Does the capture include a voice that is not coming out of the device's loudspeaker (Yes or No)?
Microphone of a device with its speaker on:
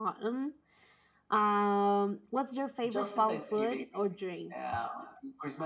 No